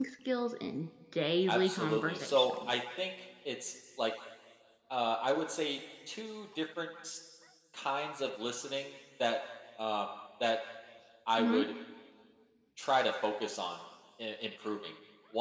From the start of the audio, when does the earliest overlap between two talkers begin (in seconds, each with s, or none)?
1.5 s